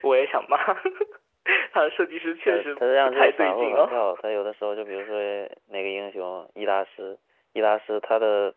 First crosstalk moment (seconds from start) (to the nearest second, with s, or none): 2 s